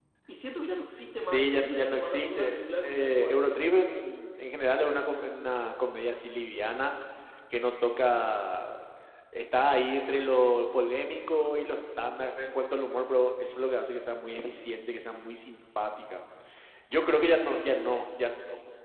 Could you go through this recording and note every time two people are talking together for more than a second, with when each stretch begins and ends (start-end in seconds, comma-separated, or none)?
1.2-3.5